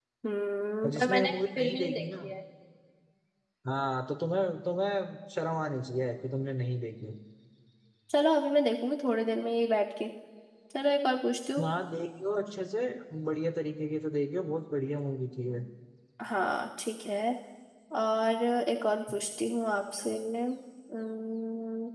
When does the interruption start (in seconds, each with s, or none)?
0.8 s